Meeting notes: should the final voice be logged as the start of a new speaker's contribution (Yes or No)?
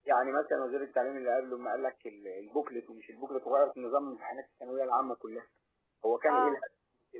No